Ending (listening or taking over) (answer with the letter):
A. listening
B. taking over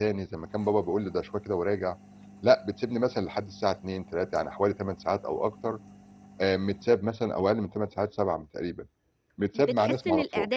B